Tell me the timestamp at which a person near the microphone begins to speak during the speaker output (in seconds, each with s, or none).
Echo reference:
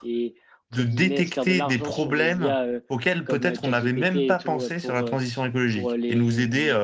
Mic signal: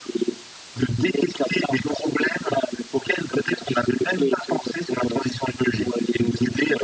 none